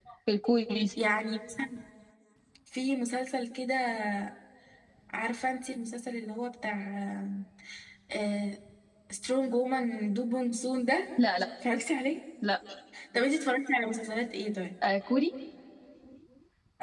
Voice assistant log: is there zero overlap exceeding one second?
Yes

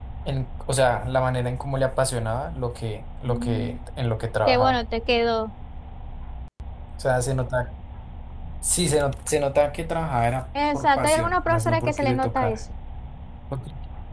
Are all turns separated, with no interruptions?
No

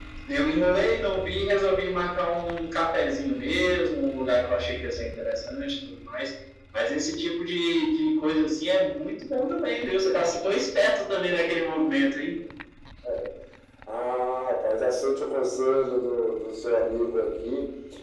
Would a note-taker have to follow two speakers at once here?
No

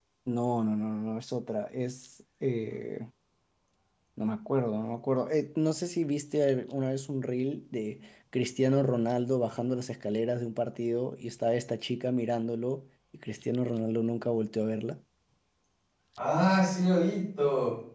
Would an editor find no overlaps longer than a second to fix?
Yes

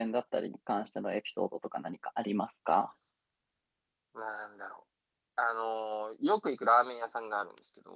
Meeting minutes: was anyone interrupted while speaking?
No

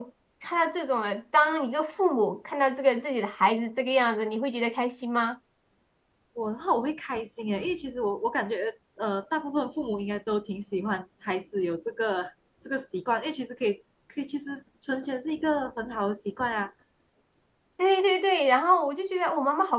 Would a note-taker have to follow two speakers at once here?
No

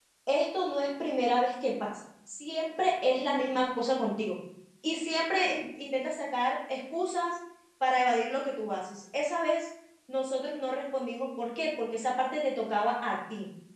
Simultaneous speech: No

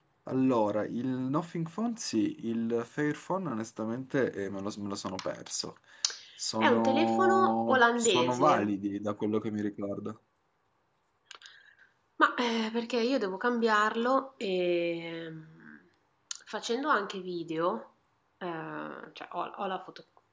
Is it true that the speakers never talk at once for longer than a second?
No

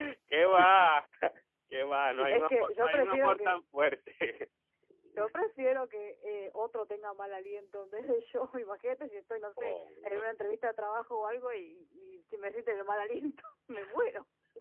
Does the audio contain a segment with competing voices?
Yes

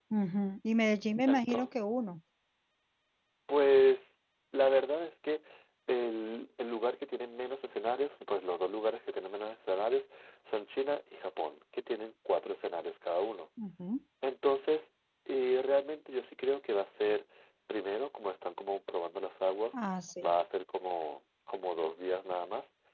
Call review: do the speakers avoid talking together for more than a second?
Yes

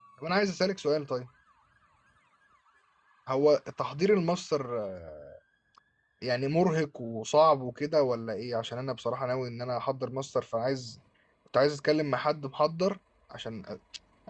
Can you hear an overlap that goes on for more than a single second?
No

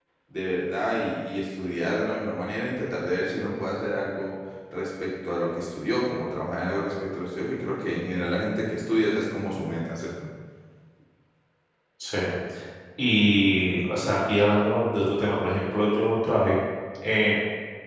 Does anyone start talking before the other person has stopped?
No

